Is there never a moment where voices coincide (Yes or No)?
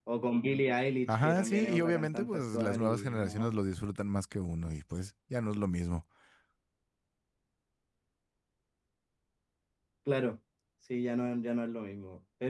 No